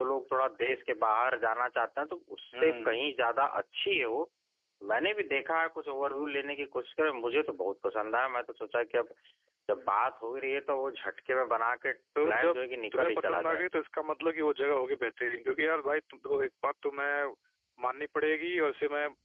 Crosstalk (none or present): present